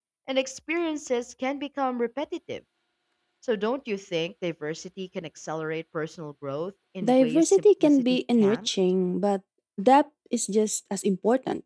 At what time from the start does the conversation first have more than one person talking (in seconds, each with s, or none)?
7.0 s